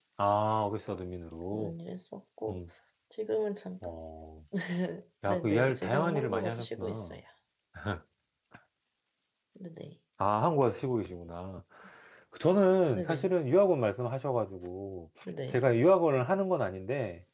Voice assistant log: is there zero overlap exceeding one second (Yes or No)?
No